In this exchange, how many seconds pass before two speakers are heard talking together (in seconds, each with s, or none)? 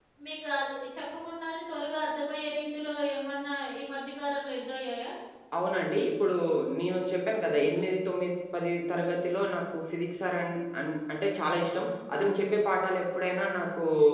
none